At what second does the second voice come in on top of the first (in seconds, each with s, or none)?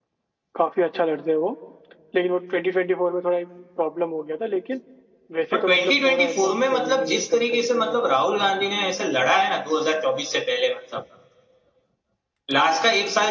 5.5 s